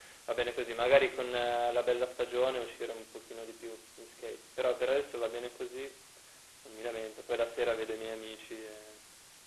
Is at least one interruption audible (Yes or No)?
No